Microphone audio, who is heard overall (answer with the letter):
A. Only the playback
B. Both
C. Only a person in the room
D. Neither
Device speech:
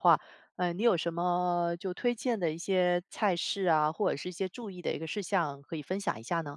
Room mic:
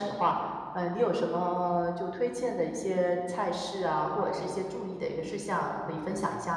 A